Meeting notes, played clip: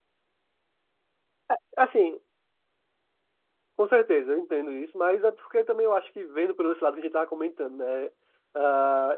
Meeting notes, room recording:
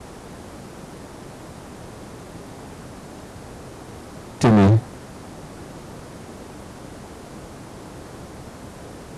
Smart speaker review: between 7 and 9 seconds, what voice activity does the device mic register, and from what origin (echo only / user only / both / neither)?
neither